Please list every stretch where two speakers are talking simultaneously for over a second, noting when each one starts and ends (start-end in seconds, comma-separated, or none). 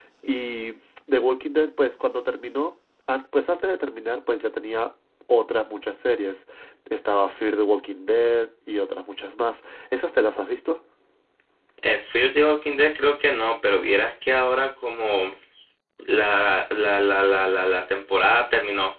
none